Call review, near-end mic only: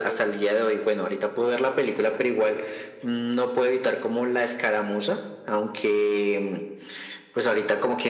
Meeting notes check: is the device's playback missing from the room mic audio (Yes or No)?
No